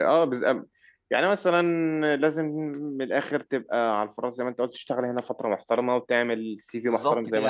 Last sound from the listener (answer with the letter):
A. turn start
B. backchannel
A